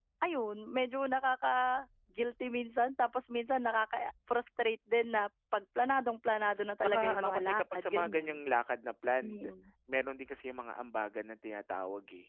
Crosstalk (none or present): present